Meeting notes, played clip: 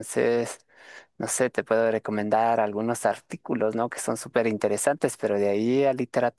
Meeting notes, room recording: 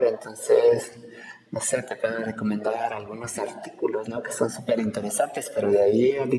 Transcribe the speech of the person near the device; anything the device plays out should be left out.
none

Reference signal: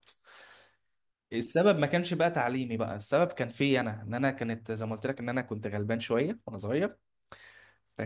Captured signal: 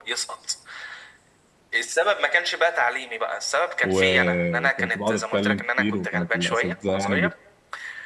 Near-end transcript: وكنت بقعد اتكلم كتير وكانت الاساتذه يعني

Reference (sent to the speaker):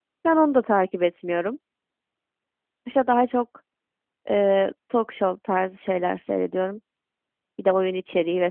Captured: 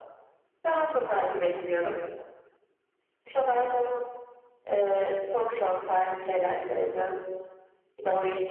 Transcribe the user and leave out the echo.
none

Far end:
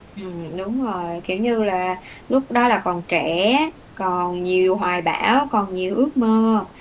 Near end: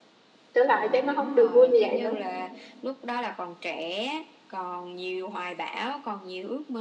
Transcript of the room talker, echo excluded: trở lại chắc nó không được vui như vậy nữa

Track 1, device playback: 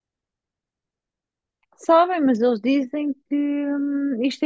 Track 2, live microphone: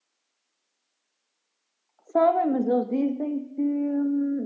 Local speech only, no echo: none

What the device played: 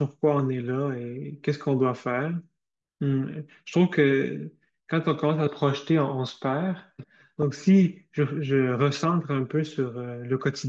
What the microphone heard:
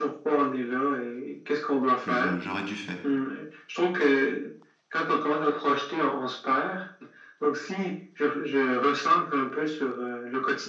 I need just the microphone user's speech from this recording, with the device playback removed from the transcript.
que je- j'aurais dû faire.

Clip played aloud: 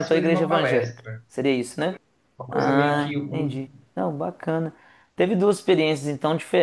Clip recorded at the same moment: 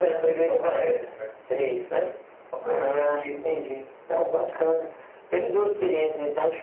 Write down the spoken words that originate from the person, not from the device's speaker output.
none

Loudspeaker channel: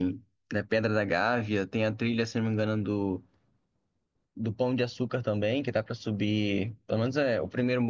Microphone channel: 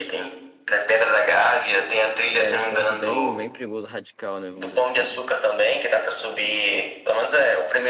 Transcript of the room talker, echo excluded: É um esporte bem, bem perigoso, radical, né, vamos dizer assim.

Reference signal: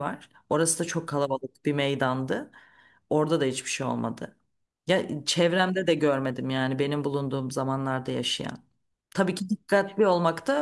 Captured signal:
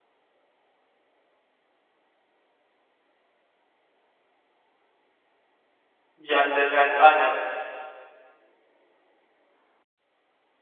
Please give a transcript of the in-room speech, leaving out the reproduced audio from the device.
yerler yani aynen

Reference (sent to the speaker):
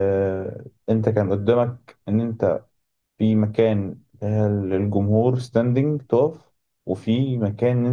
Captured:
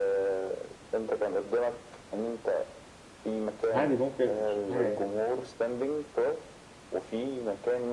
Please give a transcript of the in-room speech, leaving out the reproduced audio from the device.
عادي ممكن مش حاجه يعني

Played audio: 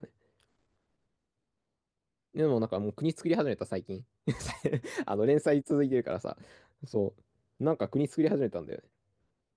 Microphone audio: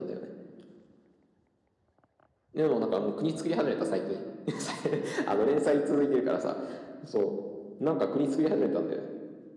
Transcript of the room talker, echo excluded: none

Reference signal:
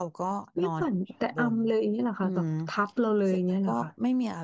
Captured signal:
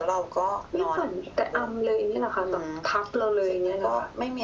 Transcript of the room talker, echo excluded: none

